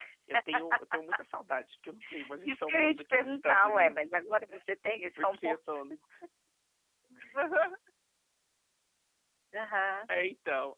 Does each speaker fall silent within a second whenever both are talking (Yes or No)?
No